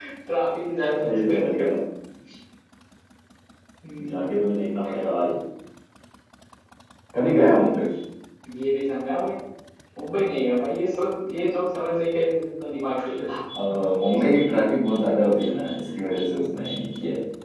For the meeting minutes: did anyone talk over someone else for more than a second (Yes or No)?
No